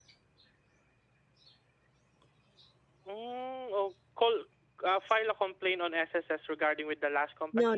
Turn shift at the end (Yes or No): Yes